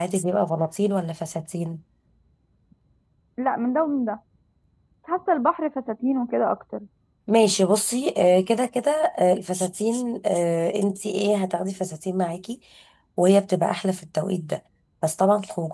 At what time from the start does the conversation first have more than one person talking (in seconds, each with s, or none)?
none